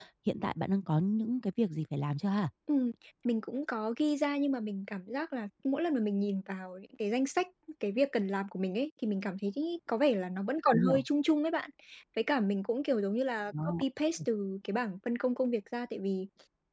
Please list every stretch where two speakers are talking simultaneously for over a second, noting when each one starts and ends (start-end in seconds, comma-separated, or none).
none